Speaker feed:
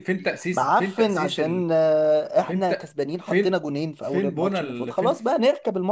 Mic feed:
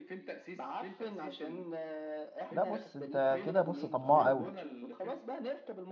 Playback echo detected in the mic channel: Yes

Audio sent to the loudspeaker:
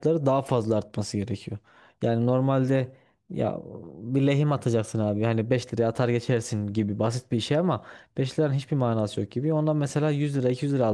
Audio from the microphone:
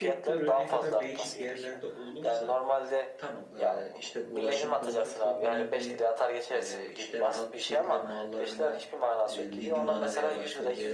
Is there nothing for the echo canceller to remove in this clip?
No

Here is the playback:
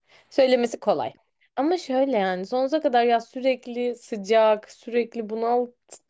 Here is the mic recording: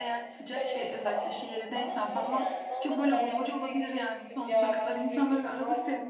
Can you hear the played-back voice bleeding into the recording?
Yes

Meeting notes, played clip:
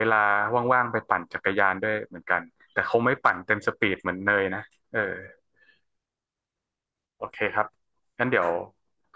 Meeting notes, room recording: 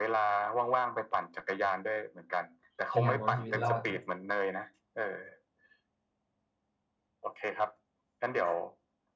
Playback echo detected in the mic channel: Yes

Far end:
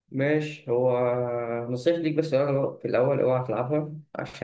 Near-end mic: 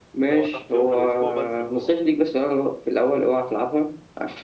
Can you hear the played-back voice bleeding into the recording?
Yes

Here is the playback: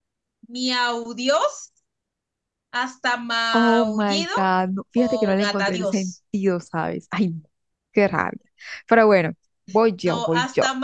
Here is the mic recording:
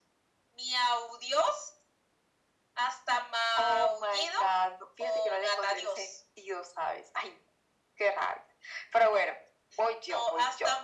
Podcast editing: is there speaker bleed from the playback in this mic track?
Yes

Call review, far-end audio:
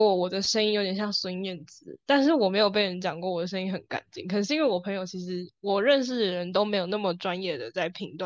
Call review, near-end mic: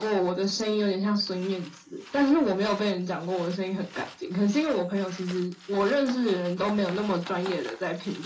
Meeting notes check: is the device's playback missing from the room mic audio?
No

